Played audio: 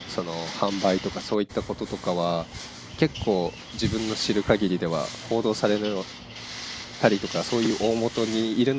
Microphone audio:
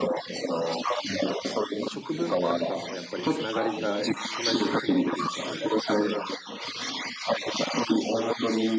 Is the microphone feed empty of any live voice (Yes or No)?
No